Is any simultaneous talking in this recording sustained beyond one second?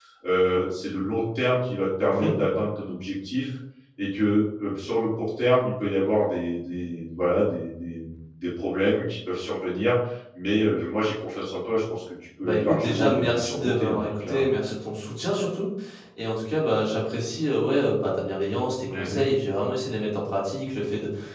Yes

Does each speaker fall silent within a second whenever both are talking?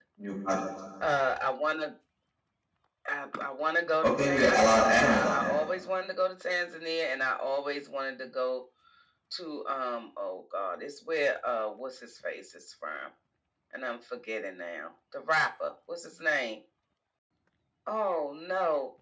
No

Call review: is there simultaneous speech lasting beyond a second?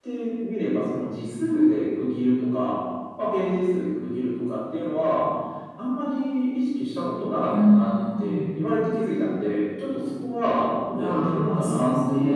Yes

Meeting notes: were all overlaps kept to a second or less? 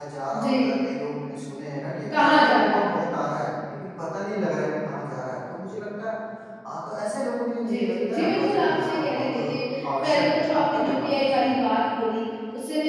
No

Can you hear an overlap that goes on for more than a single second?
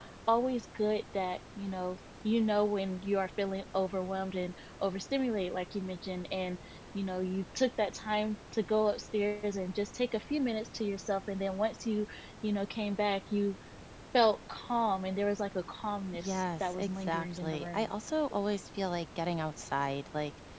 Yes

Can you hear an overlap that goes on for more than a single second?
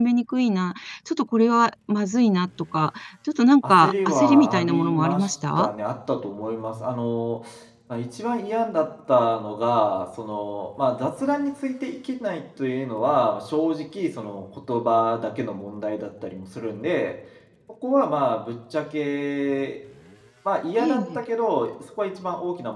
Yes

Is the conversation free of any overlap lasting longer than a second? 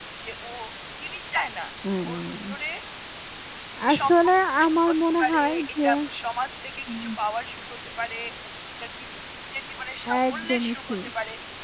No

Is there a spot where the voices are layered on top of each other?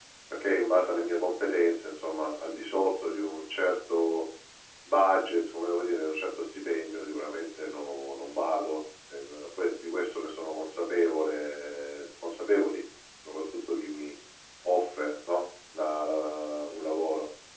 No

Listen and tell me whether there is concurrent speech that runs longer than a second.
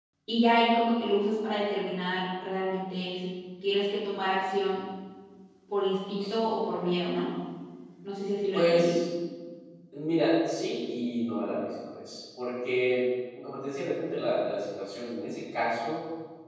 No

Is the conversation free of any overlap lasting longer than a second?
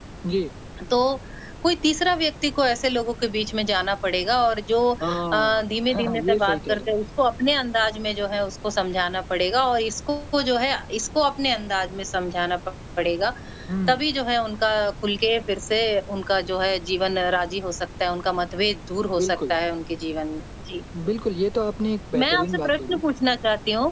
No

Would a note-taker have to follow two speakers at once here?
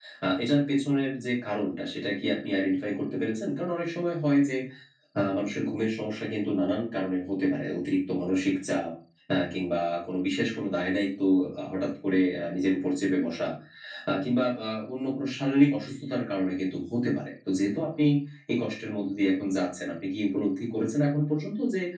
No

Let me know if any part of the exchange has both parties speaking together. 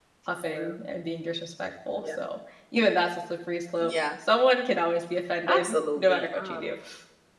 Yes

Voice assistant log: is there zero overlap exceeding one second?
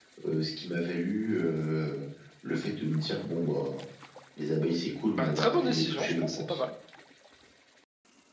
No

